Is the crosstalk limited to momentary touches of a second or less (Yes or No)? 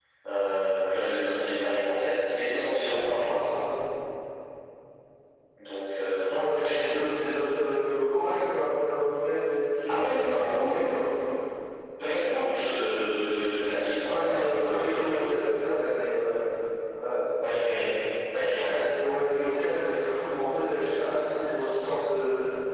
No